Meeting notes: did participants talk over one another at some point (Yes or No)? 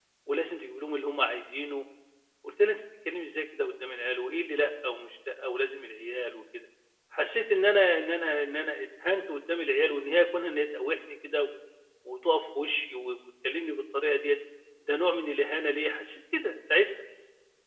No